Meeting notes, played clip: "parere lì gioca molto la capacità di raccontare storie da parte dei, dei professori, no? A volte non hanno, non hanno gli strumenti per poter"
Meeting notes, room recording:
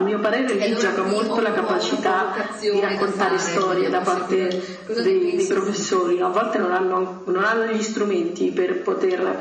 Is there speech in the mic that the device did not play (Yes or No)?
Yes